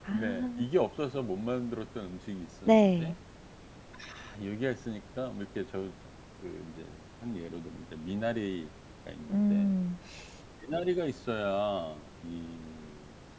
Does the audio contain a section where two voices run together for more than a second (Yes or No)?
No